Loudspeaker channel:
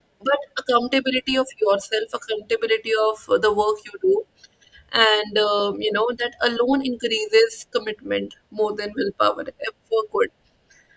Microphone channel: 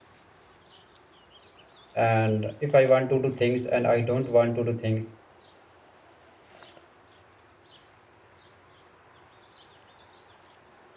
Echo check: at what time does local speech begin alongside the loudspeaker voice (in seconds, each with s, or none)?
2.0 s